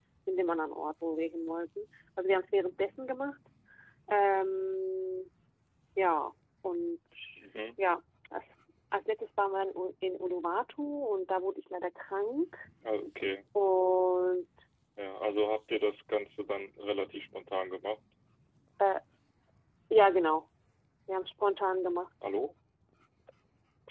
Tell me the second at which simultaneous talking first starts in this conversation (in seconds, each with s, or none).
none